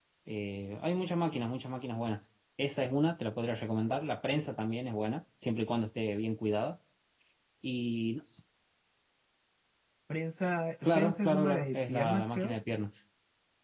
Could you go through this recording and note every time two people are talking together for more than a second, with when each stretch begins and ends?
10.9-12.6

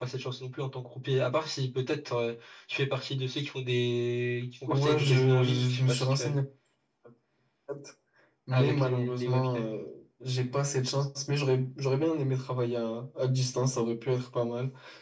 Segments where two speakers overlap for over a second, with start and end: 4.7-6.4, 8.5-9.8

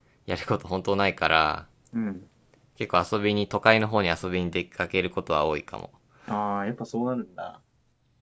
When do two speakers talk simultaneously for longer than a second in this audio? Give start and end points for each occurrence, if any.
none

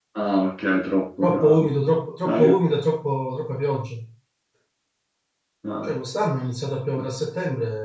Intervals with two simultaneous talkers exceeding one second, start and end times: none

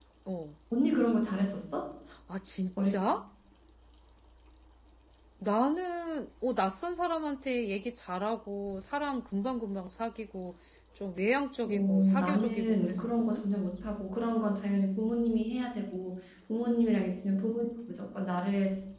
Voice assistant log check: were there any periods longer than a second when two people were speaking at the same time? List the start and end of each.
11.7-13.4

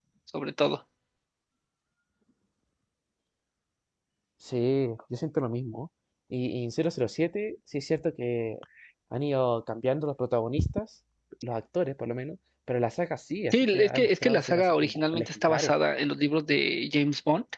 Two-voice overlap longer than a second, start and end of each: 13.5-15.7

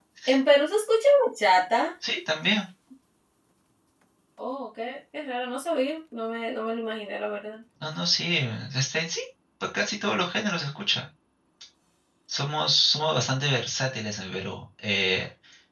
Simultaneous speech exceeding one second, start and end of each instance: none

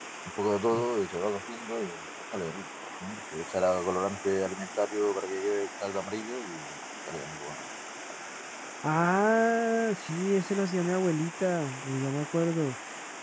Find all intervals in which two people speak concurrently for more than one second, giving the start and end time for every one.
none

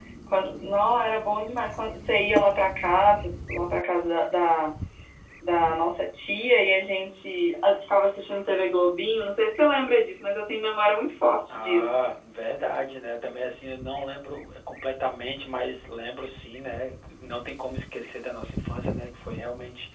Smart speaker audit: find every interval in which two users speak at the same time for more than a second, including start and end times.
none

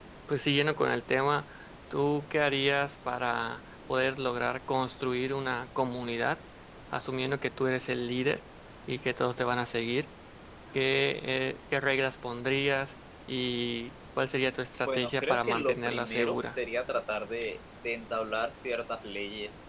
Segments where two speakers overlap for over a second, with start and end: 14.8-16.6

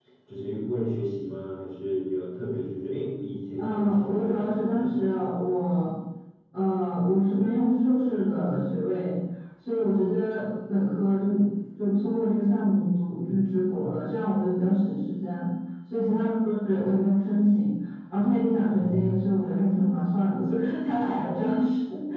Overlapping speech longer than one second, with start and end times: 3.6-5.0

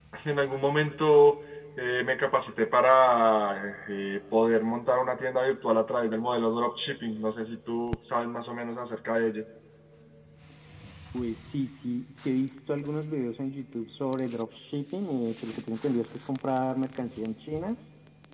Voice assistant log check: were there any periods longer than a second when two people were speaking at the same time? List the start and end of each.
none

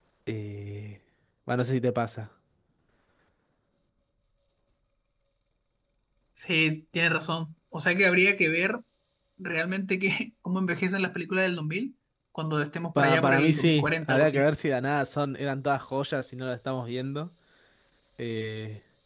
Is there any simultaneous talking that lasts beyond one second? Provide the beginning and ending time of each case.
13.0-14.4

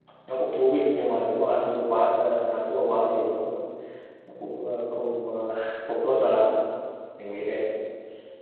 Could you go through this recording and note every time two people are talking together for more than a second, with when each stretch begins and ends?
none

